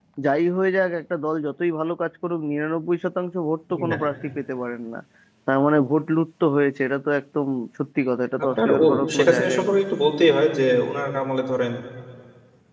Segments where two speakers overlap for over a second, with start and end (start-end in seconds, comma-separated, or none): 8.4-9.8